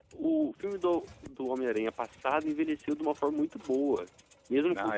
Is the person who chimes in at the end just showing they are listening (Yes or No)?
Yes